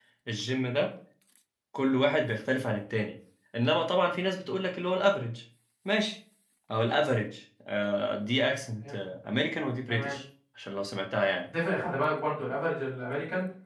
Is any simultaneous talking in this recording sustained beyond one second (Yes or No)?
No